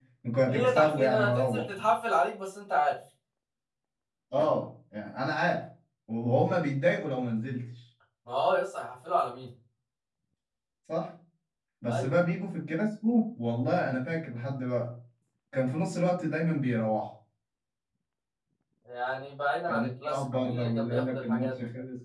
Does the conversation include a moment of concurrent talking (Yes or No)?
Yes